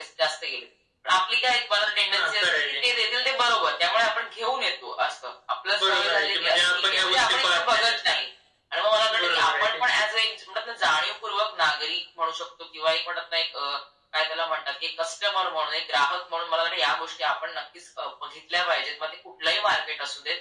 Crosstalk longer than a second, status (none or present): present